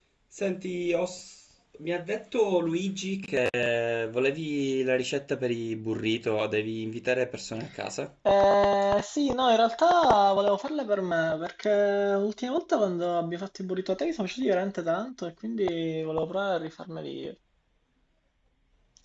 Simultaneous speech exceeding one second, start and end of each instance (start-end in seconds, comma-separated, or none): none